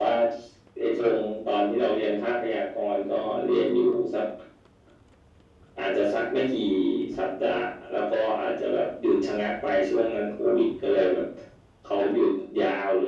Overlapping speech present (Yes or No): No